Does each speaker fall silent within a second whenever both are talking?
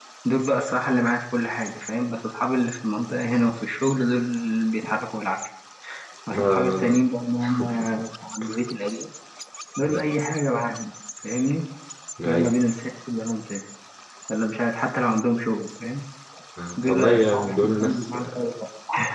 No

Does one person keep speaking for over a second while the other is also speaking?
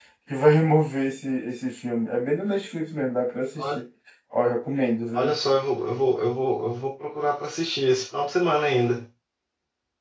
No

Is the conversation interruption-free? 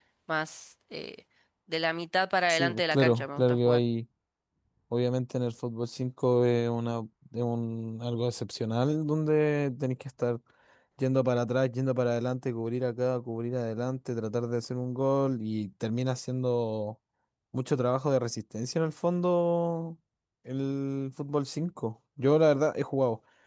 No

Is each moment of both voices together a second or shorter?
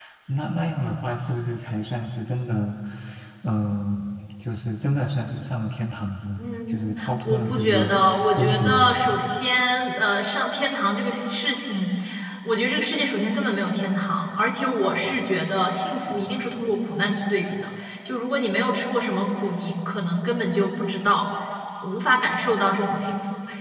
No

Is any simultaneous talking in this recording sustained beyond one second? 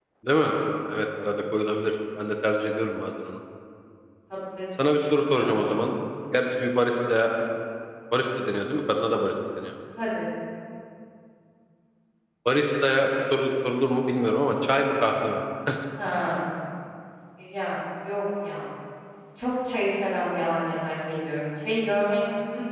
No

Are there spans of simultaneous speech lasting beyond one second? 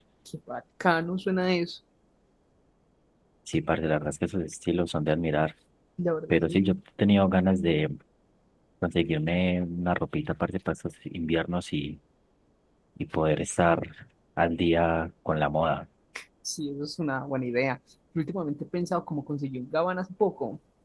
No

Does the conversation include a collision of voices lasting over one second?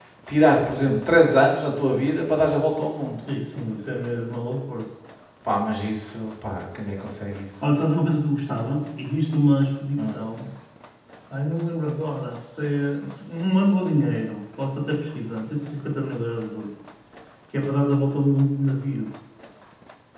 No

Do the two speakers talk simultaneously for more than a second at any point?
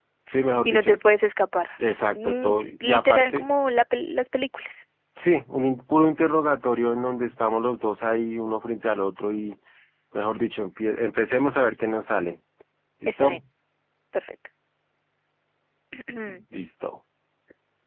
Yes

